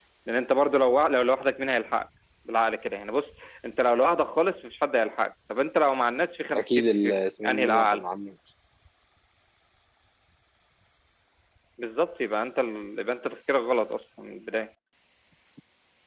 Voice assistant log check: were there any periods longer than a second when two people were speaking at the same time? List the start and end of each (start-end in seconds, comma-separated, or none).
6.5-8.0